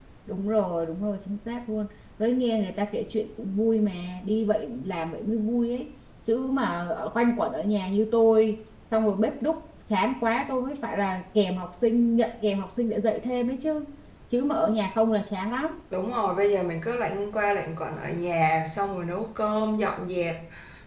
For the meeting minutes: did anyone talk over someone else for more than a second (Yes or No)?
No